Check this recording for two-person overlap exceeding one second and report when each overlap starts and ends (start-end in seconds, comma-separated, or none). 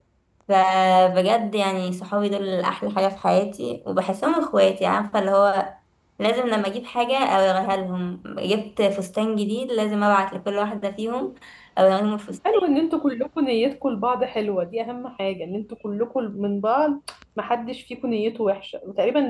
none